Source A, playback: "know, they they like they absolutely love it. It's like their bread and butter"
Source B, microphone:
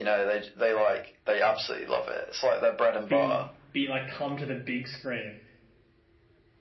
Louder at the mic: echo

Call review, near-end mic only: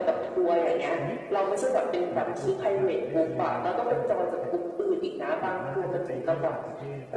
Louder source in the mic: echo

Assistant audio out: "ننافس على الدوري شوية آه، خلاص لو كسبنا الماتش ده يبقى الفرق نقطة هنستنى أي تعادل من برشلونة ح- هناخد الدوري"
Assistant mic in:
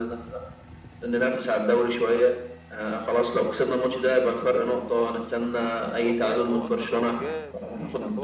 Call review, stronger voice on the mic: echo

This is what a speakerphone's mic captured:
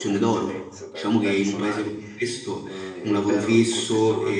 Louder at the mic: user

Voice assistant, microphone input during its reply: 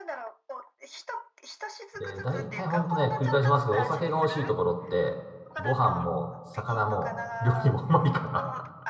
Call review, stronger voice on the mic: user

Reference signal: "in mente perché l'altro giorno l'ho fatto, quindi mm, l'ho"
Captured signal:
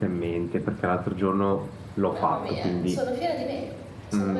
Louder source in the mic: echo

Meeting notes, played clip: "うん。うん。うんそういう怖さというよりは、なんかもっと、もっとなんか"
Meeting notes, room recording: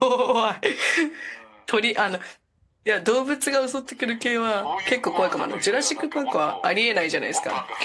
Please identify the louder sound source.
user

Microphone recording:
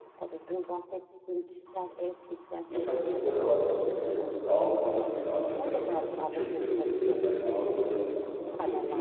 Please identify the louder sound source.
user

